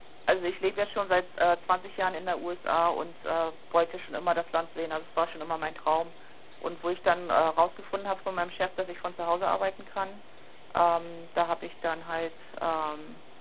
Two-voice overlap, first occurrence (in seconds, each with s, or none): none